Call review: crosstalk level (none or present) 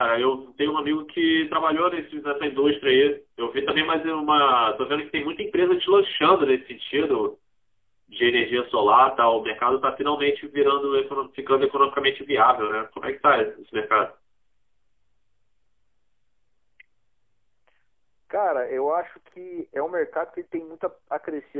none